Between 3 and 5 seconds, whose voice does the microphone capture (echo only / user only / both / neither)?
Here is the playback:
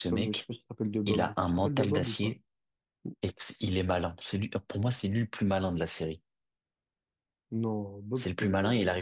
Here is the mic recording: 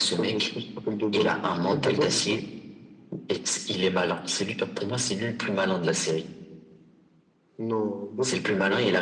echo only